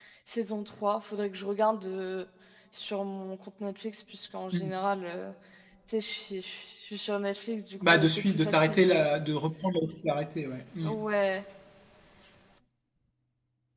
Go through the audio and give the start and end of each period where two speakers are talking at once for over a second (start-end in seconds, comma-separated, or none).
7.8-9.1